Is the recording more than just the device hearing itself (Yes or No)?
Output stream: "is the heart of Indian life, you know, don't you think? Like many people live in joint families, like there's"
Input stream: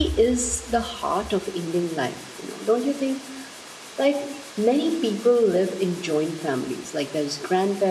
No